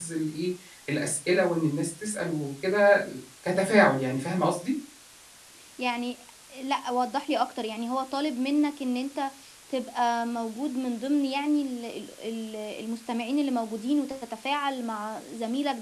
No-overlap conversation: Yes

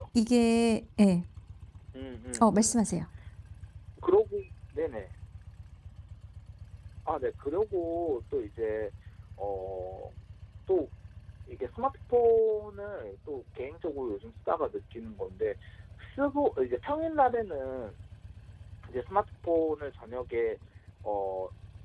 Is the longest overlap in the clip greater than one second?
No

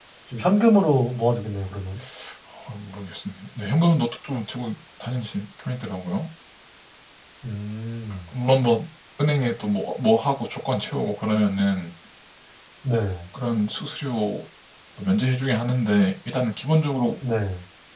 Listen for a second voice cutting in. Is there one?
No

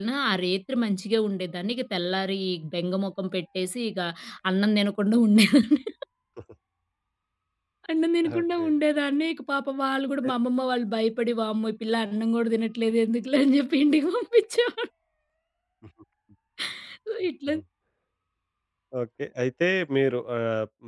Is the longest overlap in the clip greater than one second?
No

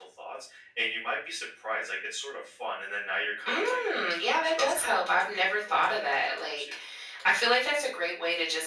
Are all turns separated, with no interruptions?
No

